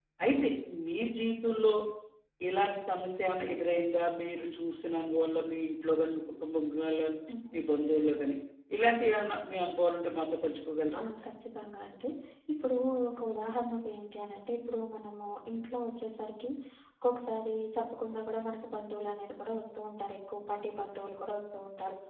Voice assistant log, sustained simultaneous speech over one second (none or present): none